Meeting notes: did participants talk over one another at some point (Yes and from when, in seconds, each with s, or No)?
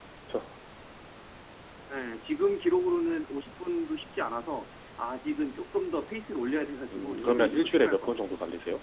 Yes, from 6.9 s